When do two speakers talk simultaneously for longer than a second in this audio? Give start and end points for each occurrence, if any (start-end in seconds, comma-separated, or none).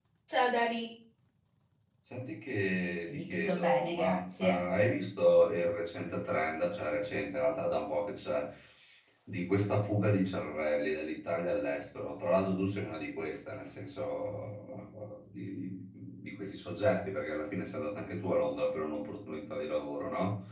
3.1-4.6